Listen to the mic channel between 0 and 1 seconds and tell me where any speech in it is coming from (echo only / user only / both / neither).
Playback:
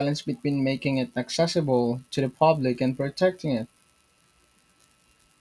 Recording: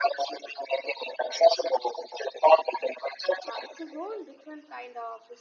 echo only